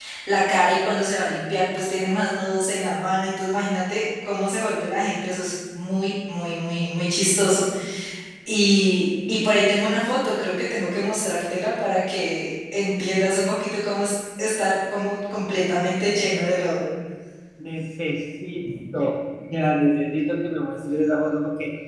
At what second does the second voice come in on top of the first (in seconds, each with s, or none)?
none